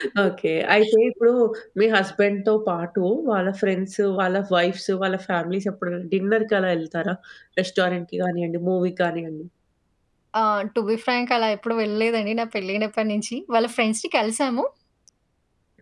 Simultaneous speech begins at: none

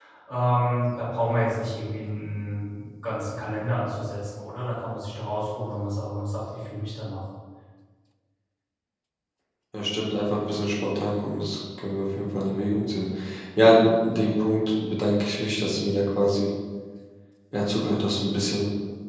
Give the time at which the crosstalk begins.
none

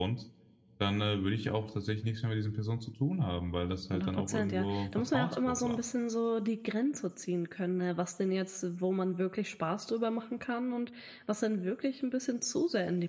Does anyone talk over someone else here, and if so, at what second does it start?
3.9 s

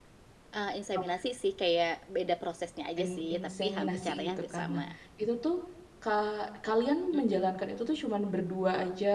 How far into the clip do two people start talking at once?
3.0 s

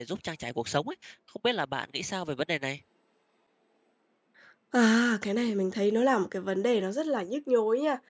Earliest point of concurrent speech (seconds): none

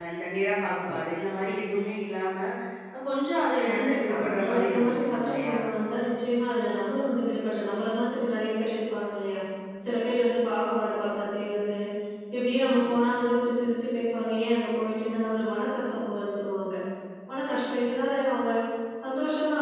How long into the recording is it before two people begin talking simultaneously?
3.7 s

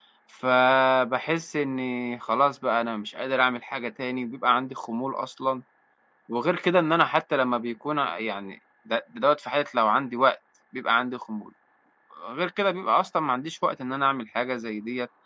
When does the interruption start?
none

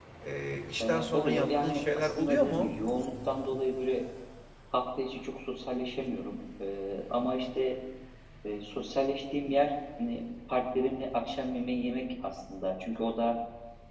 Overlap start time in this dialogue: 0.8 s

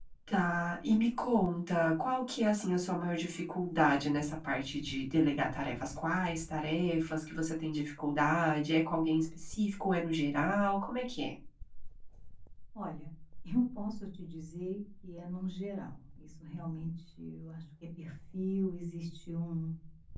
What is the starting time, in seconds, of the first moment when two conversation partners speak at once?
none

